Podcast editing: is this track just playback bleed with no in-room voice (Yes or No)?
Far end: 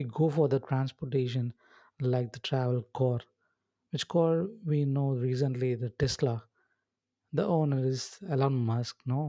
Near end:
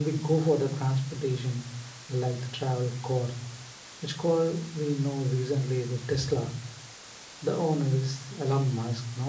Yes